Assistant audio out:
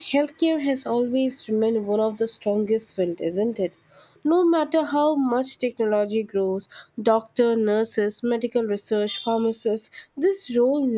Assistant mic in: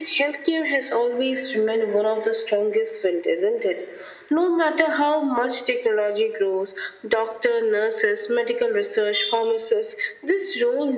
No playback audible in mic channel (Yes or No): No